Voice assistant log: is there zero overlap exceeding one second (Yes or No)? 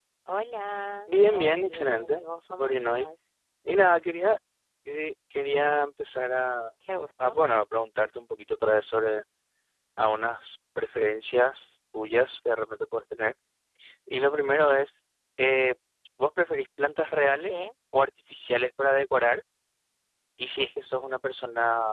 No